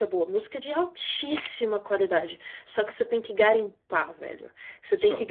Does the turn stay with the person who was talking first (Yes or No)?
Yes